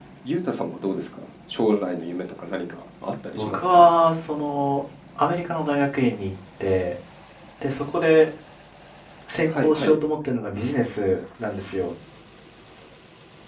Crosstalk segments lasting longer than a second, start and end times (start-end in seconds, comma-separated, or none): none